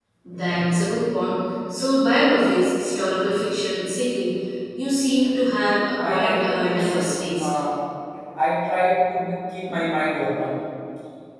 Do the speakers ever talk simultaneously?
Yes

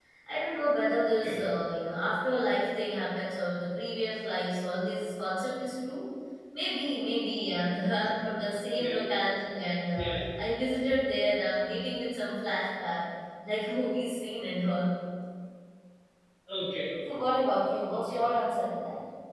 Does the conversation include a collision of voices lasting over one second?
No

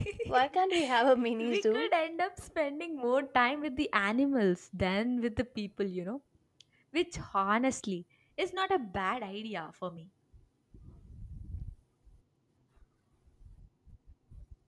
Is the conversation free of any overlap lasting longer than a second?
Yes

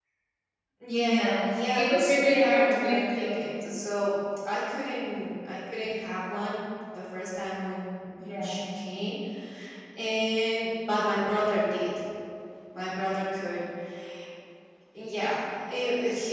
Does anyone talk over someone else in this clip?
Yes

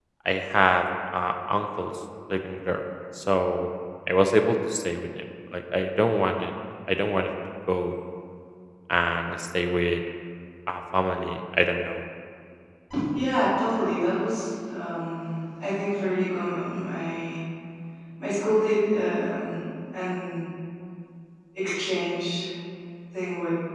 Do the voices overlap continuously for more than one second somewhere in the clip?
No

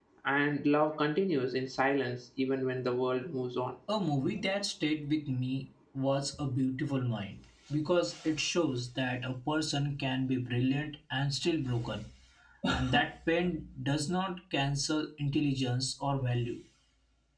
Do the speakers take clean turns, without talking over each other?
Yes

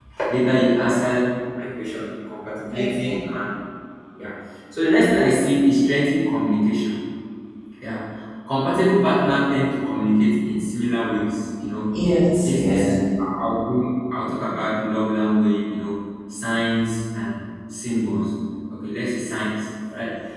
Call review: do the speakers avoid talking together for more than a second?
Yes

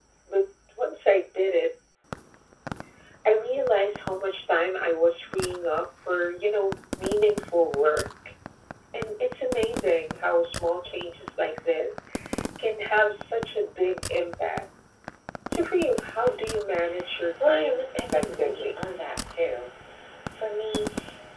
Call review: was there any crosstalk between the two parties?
Yes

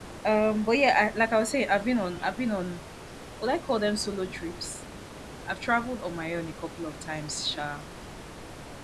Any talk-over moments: No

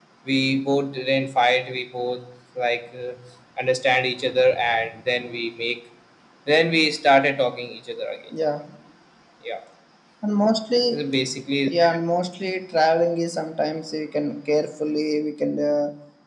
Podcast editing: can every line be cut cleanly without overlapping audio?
Yes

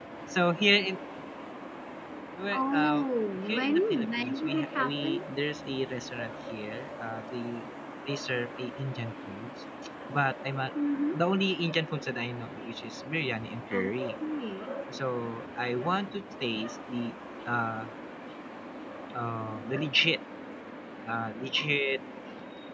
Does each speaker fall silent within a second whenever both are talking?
No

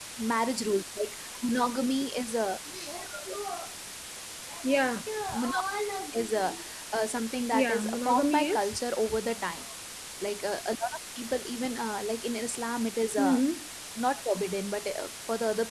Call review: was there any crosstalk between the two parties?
Yes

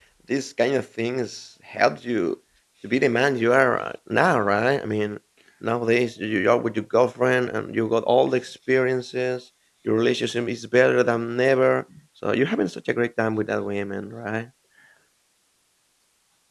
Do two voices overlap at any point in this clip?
No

